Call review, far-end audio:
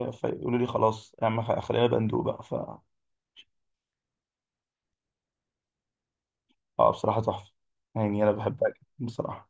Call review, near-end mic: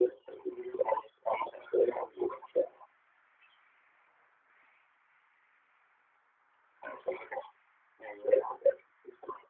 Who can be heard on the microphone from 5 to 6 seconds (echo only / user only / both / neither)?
neither